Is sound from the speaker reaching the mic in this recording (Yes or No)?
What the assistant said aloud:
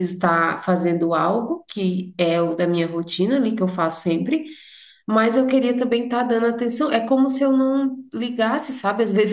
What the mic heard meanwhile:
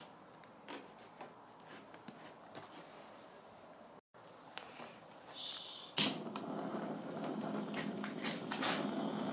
No